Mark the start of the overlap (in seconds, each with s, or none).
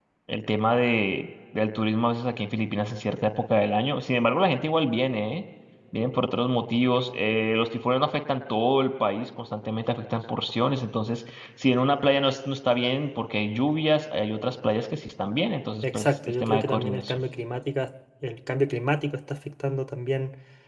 15.8 s